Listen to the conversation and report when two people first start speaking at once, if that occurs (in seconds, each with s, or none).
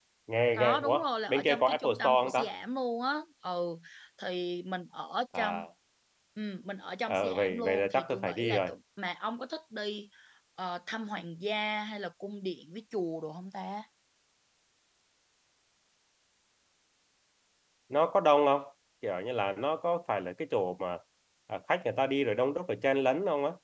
0.6 s